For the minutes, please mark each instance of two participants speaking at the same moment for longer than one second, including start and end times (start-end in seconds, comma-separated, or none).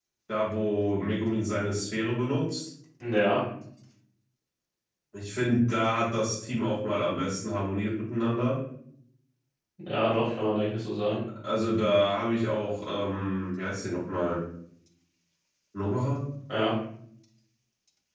none